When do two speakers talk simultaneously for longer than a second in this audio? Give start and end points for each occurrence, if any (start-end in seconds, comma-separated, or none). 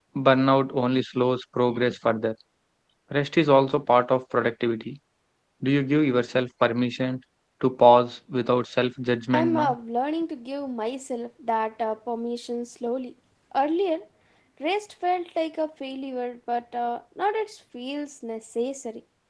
none